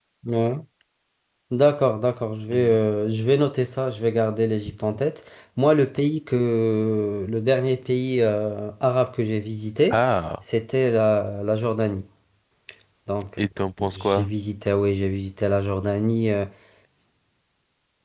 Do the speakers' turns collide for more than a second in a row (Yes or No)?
No